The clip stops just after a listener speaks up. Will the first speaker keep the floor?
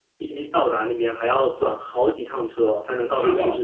No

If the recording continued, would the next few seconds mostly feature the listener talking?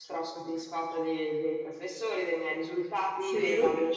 No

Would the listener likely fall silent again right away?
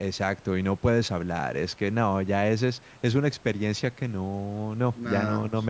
No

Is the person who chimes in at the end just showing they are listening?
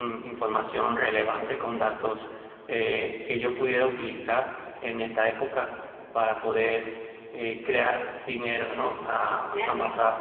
Yes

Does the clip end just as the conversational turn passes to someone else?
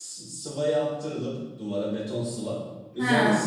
No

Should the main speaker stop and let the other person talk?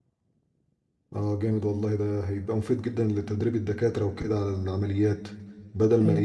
No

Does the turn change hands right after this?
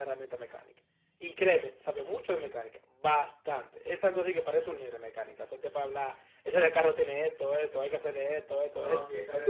Yes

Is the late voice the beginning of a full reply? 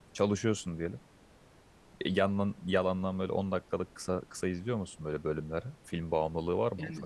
Yes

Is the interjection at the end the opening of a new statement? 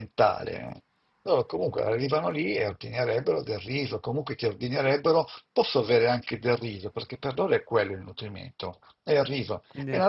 No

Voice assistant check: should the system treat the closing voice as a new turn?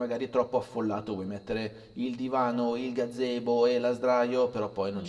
Yes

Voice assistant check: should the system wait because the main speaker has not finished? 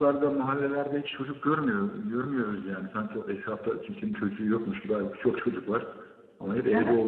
Yes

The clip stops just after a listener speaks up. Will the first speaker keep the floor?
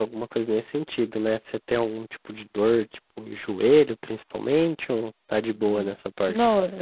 No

